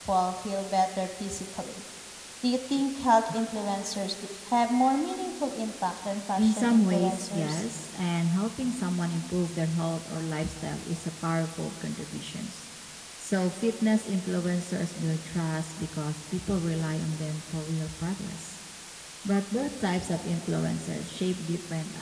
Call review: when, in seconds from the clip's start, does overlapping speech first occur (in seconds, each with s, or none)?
6.4 s